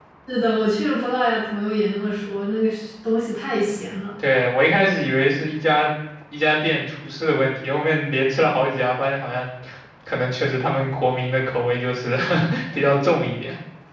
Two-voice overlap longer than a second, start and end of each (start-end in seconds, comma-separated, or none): none